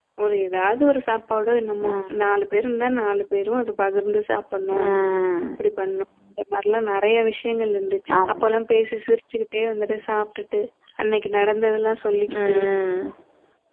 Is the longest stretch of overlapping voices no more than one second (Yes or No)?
Yes